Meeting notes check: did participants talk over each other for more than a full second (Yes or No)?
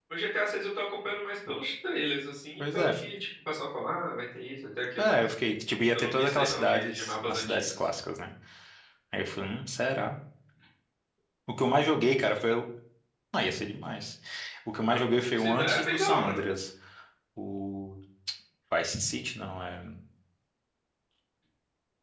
Yes